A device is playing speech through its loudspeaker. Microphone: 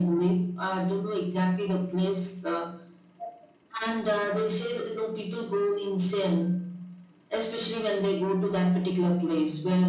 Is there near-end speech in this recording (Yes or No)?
No